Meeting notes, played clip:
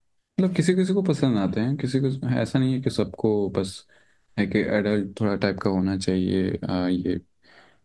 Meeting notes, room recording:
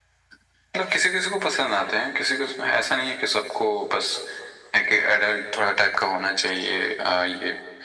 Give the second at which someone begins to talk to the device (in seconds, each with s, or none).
none